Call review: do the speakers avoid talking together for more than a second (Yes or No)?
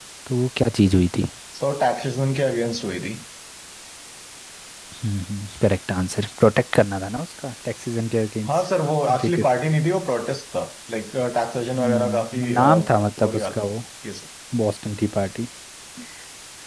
No